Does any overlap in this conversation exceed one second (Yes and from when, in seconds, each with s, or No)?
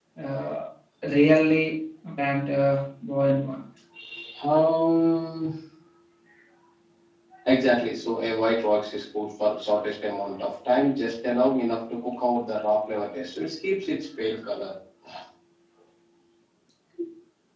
No